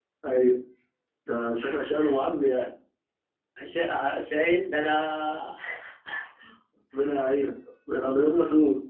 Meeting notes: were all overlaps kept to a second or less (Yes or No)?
Yes